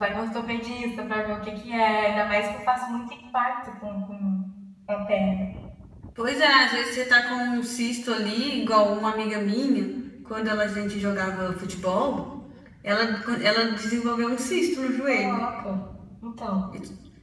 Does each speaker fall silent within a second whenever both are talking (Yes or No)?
Yes